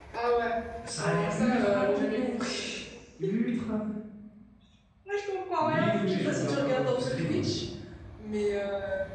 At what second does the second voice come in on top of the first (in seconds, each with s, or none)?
1.0 s